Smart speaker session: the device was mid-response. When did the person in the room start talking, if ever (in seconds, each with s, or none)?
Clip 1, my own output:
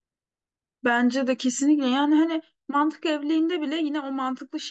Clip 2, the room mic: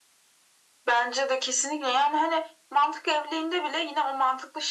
none